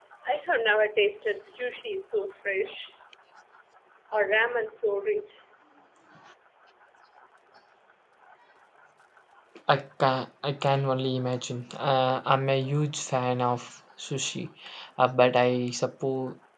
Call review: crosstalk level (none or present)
none